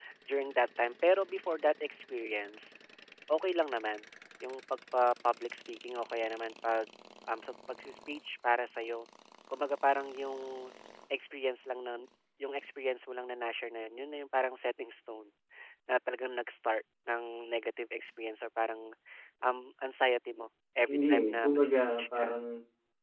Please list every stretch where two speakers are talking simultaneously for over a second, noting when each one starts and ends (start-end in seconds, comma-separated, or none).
20.9-22.3